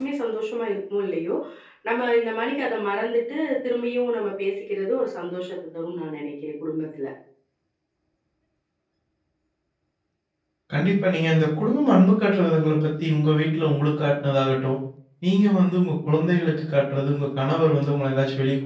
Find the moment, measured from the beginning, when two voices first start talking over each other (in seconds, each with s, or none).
none